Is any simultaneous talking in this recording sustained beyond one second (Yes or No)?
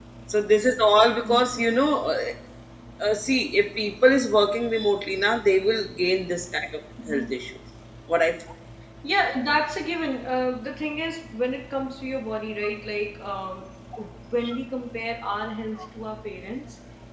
No